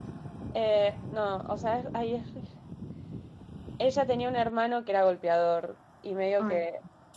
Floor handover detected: No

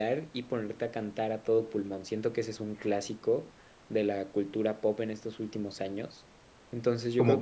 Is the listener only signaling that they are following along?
No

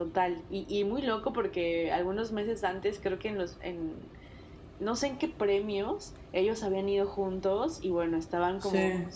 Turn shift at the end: No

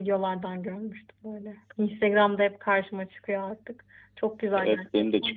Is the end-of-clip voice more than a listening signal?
Yes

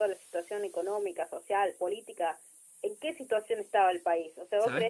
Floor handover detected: No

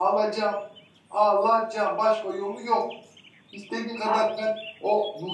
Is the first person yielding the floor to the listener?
No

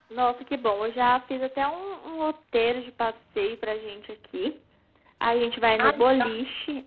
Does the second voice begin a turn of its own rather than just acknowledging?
No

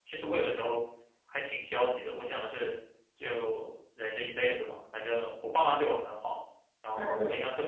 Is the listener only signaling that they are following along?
Yes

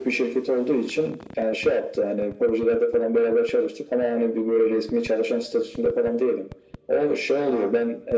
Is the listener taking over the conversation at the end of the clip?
No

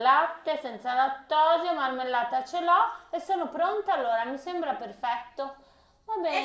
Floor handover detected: Yes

